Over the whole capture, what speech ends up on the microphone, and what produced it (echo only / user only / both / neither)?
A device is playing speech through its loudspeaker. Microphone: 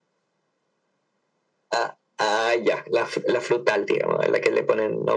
echo only